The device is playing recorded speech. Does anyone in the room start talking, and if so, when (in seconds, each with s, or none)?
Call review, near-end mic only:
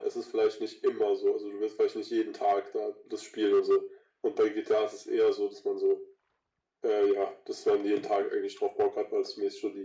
none